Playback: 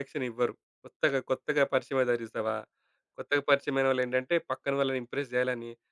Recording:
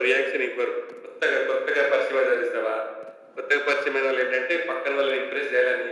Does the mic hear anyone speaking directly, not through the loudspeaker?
No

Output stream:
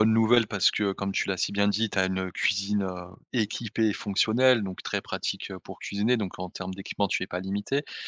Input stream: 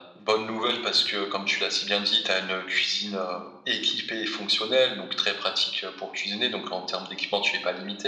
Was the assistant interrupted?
No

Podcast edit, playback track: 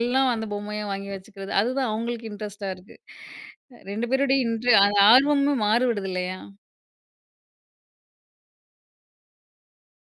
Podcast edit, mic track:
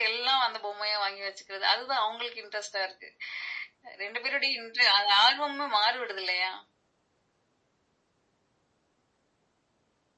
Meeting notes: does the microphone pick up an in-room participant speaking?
No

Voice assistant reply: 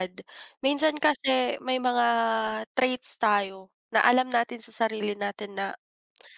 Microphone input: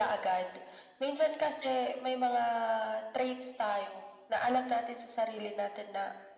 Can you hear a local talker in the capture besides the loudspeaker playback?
No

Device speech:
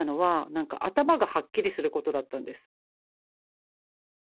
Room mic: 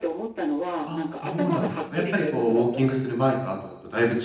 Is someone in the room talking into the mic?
Yes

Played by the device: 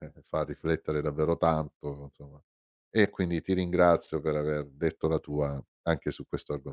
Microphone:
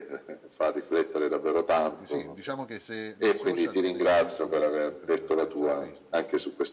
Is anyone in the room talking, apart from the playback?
Yes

